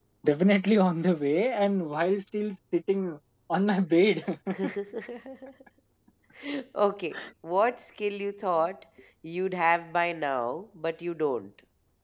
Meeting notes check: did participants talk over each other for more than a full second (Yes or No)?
No